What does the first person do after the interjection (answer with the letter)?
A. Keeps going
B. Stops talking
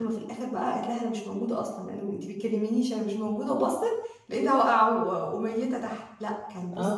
B